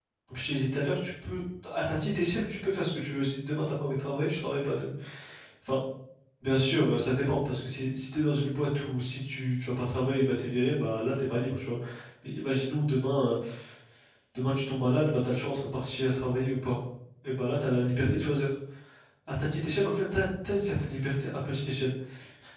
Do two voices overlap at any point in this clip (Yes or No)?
No